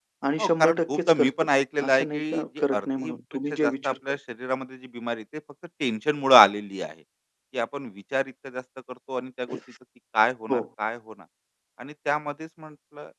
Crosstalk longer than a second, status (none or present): present